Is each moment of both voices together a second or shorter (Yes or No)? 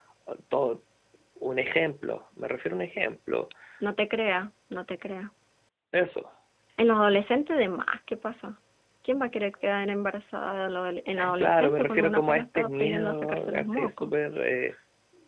No